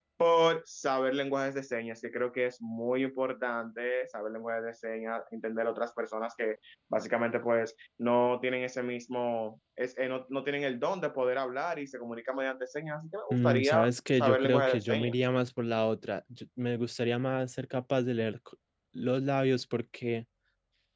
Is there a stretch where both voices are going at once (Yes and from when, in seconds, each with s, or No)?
Yes, from 13.3 s